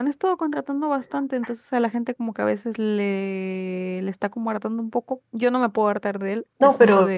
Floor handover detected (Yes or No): Yes